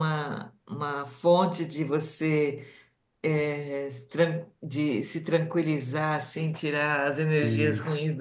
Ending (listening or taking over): listening